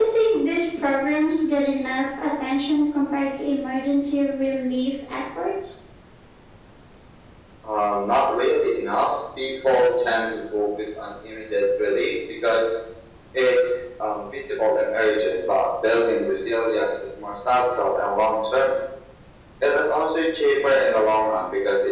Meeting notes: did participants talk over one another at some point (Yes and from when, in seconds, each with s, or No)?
No